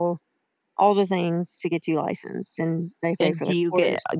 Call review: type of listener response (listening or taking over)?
taking over